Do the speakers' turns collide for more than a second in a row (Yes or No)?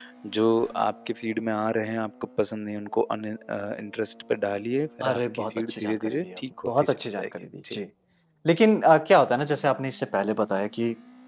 Yes